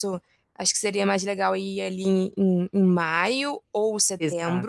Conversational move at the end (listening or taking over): taking over